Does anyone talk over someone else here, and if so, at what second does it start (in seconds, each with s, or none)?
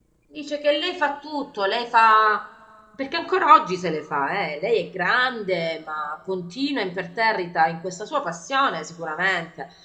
none